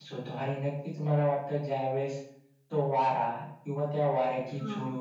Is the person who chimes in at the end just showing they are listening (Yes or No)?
Yes